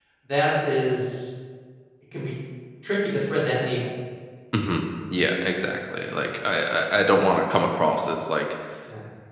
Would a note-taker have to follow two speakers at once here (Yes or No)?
No